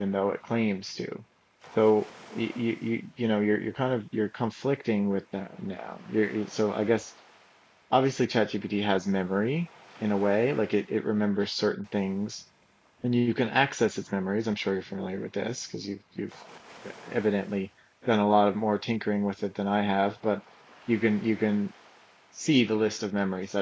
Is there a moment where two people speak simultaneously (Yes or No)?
No